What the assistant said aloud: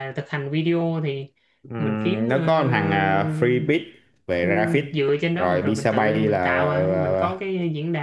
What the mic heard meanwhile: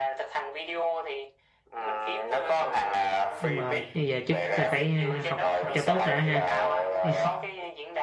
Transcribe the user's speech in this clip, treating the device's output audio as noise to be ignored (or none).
đúng rồi, bây giờ trước là phải ờ, học học cho tốt đã ha Chứ